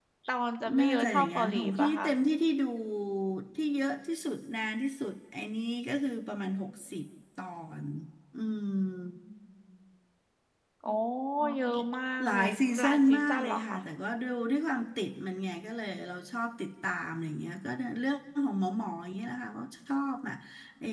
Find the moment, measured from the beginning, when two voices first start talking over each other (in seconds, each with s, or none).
0.8 s